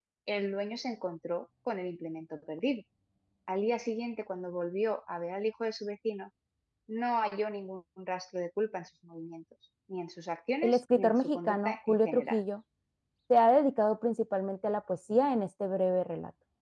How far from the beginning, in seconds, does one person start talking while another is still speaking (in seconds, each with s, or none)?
10.6 s